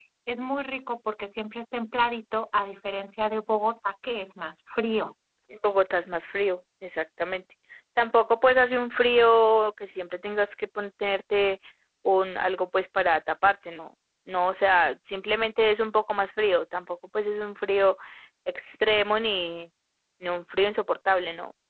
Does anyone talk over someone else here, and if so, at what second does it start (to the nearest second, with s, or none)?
none